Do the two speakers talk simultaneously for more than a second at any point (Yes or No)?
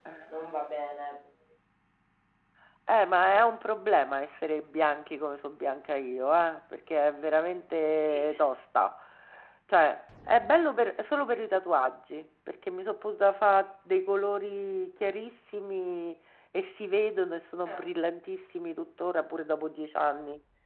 No